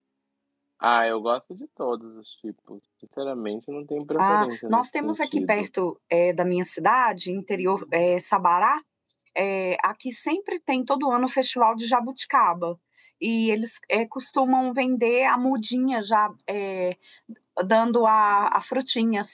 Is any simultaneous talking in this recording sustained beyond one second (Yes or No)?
Yes